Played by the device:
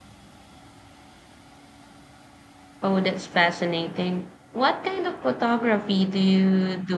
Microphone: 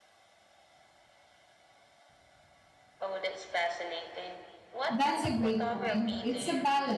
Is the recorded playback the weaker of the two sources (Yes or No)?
Yes